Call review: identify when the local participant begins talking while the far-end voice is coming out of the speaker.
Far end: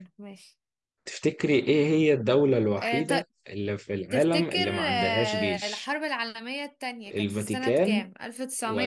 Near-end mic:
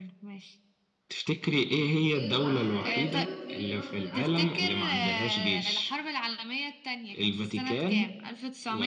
2.1 s

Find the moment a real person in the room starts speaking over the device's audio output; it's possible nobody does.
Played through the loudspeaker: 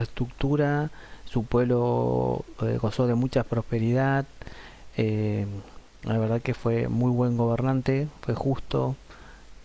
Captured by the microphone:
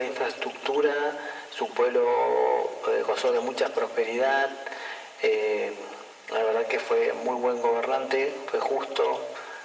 none

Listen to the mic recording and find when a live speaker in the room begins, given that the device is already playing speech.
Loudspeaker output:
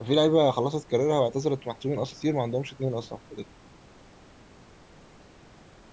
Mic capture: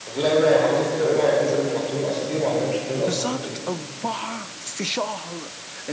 3.0 s

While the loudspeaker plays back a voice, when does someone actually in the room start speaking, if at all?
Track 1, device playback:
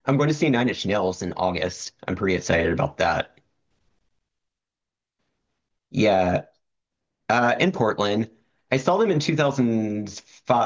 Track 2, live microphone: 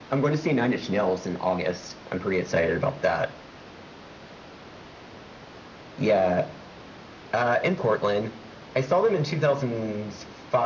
none

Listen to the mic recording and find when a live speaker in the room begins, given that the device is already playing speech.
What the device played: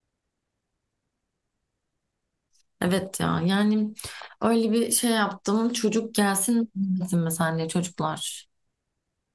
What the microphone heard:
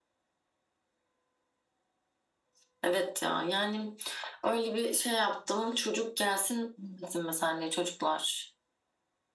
none

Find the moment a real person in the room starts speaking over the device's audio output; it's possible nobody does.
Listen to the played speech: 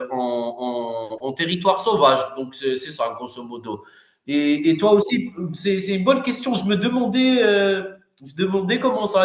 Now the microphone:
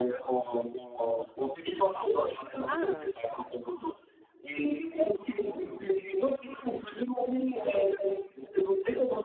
2.7 s

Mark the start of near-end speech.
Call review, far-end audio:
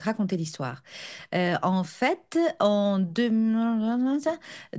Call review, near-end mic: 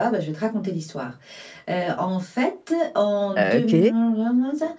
3.4 s

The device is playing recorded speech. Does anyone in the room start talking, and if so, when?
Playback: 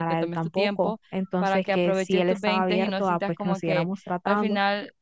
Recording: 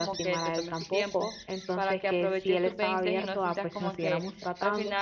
none

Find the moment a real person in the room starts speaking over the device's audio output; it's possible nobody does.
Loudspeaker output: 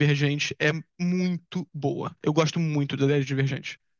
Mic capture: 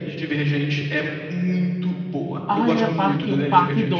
2.5 s

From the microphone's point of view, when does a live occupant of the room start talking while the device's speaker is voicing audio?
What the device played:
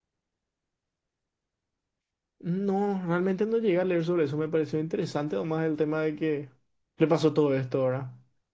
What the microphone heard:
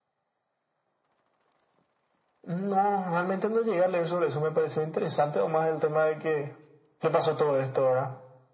none

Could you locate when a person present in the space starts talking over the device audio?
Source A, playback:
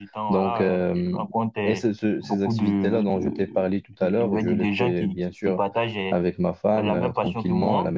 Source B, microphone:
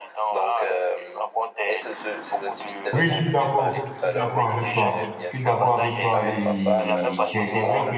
2.9 s

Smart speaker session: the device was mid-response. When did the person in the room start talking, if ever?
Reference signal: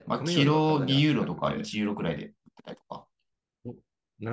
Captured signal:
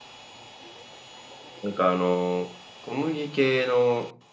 1.6 s

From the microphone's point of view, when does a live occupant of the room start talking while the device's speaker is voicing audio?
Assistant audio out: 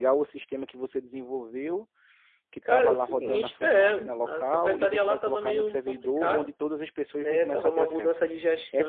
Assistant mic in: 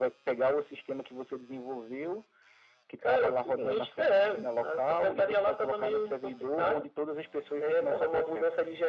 none

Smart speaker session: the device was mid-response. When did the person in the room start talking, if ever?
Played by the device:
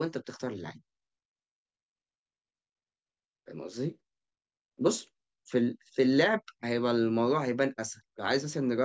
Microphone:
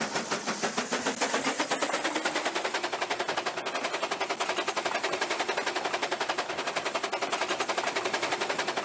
none

